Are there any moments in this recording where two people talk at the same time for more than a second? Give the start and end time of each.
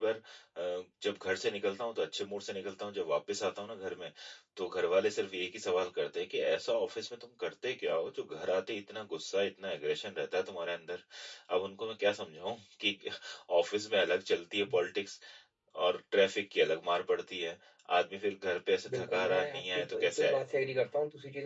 18.9-20.4

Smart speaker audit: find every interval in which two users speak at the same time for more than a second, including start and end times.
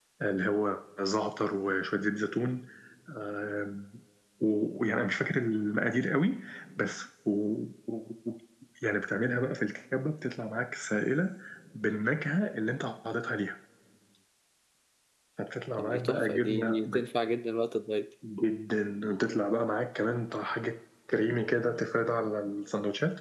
15.8-17.0

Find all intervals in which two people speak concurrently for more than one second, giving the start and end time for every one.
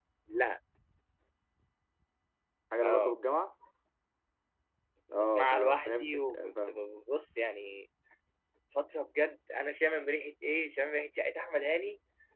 5.1-6.8

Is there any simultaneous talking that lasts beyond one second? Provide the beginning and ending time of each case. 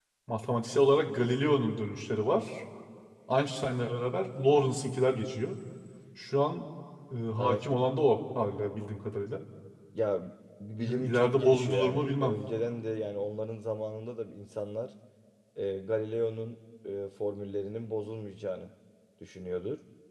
10.9-12.4

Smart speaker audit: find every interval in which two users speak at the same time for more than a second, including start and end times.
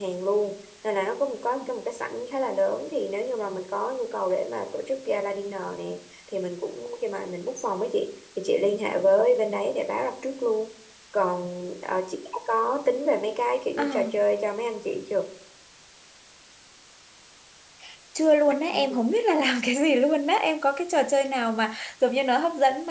none

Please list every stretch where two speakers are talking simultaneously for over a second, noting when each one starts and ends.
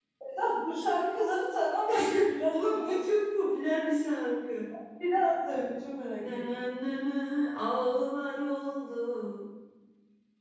none

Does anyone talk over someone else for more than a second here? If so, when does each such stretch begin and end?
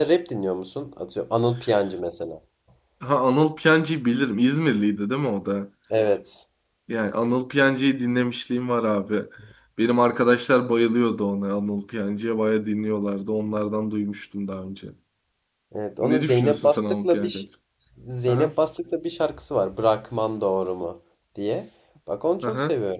16.0-17.4

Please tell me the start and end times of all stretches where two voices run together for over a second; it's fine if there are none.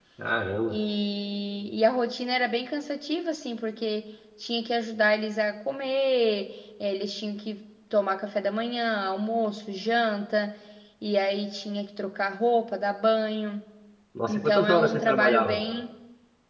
14.3-15.6

